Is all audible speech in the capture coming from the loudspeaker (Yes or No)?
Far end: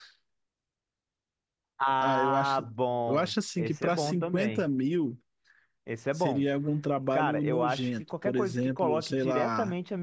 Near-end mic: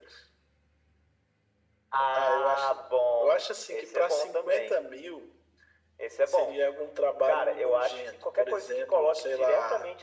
Yes